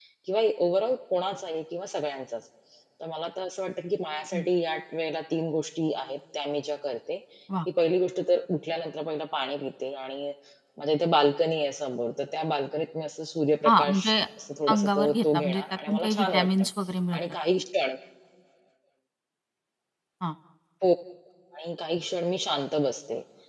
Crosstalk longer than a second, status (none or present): present